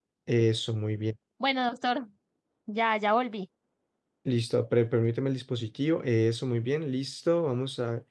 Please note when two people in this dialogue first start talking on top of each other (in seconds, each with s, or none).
none